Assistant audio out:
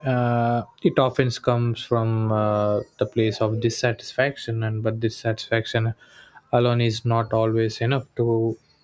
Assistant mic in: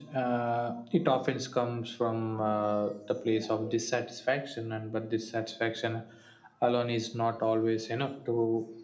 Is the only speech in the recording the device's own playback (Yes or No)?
Yes